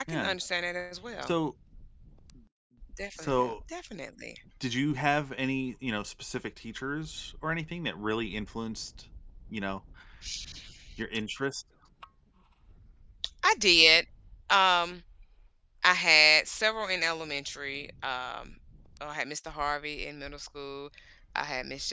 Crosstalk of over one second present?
No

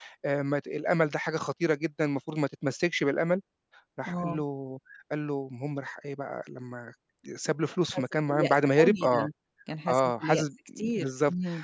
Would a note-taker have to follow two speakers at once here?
Yes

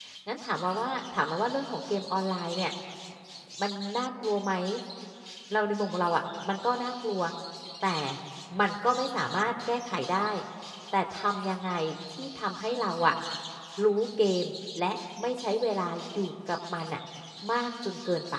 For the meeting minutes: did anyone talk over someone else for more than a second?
No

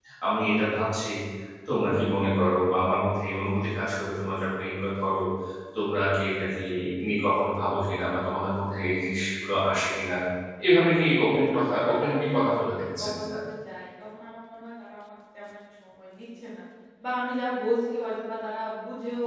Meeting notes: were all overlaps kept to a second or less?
No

